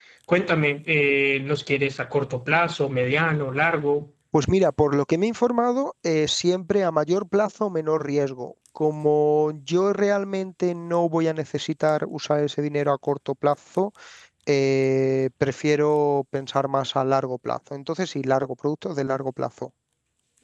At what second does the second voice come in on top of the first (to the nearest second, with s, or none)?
none